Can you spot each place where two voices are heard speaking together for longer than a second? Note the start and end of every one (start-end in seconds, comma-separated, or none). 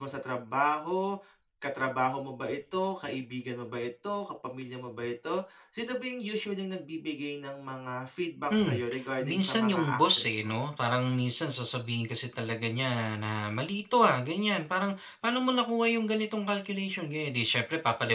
8.5-10.5